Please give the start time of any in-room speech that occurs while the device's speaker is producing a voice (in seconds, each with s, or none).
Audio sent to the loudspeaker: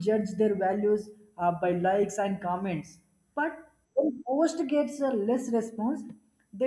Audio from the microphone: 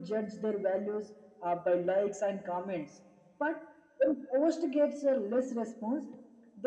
none